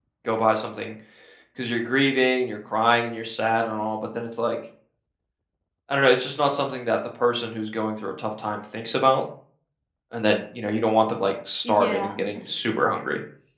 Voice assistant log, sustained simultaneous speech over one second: present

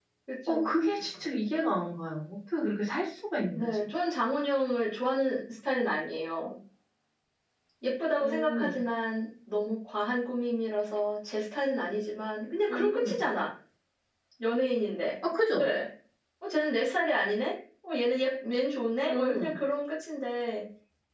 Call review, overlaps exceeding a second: none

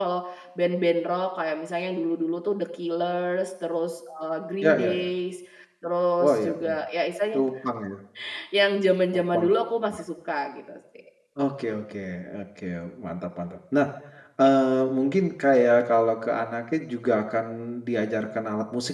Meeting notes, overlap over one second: none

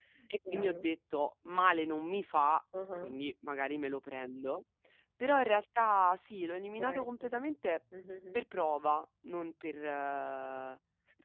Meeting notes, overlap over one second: none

